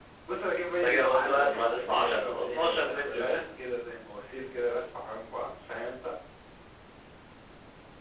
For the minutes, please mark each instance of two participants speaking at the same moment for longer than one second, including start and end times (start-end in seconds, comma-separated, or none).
0.7-3.3